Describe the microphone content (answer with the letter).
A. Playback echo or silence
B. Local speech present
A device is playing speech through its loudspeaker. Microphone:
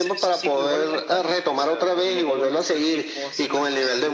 B